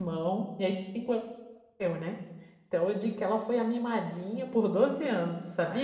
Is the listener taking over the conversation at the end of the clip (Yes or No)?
Yes